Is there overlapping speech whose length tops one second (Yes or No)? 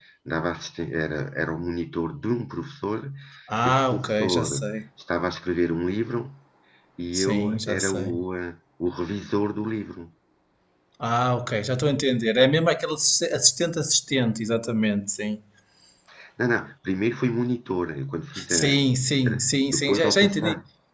Yes